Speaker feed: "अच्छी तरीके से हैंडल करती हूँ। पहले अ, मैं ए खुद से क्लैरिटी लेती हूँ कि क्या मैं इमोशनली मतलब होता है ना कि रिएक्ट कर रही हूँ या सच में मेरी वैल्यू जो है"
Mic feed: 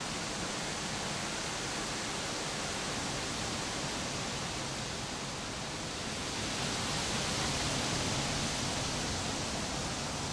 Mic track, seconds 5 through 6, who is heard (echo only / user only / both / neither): neither